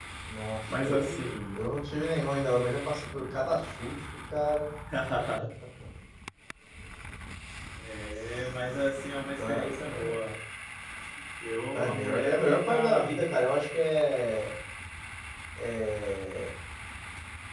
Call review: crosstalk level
present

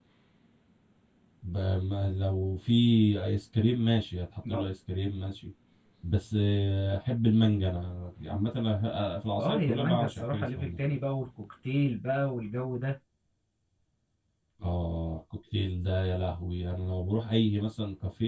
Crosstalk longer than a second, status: present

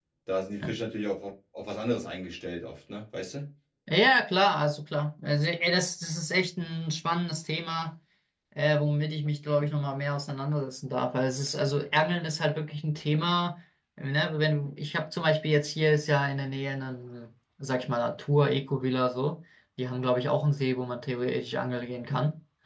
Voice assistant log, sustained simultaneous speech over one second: none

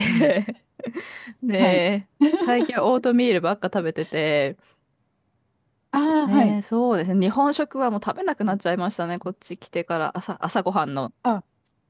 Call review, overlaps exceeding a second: none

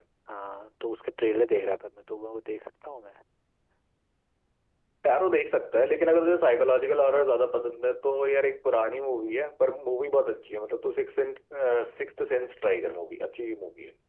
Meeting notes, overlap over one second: none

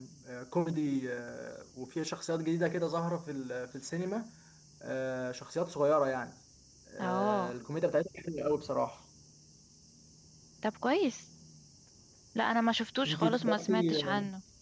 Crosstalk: present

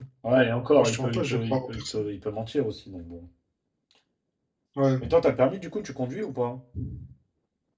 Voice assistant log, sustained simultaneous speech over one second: present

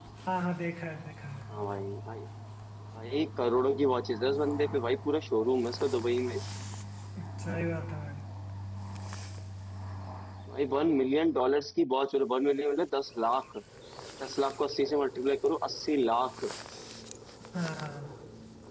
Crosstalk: none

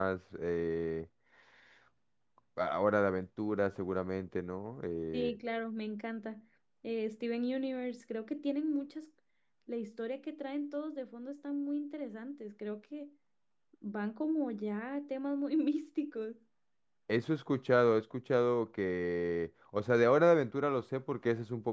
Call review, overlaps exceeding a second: none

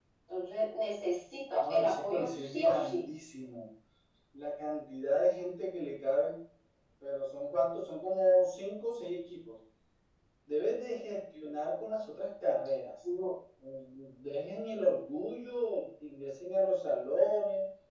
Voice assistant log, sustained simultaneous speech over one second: present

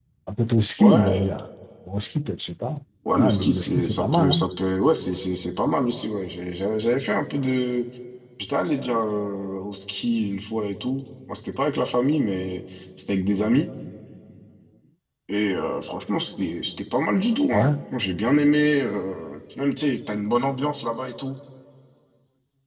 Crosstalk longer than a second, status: present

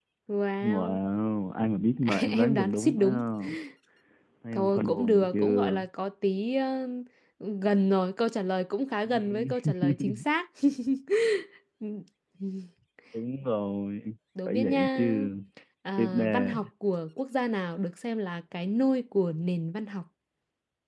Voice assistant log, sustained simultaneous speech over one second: present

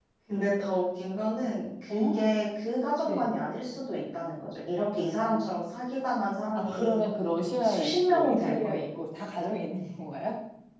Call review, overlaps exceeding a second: present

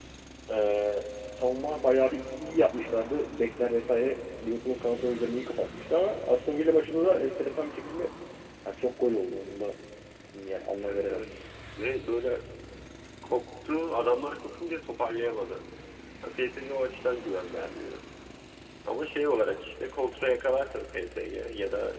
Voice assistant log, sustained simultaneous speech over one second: none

